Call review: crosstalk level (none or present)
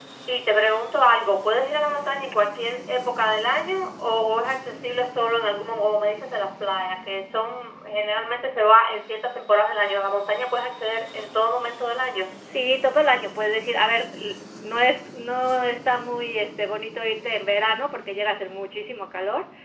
none